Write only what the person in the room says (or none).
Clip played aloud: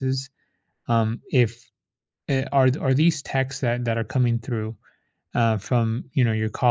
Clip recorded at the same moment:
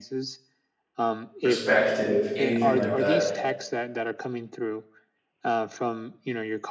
perspective, anything like that.